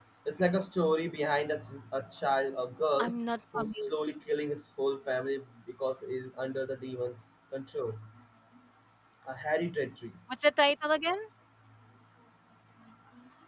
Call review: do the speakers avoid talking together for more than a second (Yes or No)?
Yes